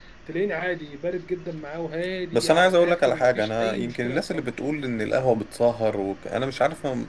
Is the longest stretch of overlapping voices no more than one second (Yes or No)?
No